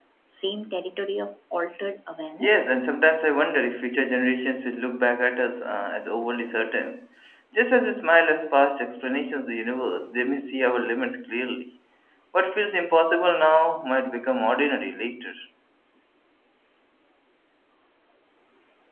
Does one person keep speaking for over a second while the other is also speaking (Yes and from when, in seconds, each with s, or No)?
No